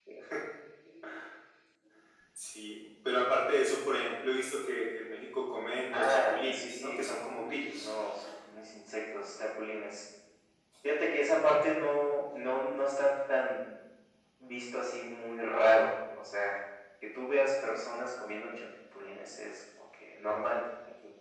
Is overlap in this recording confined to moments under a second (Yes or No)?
No